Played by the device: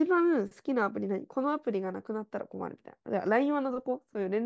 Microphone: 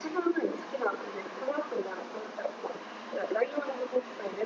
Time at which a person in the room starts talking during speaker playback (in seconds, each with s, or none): none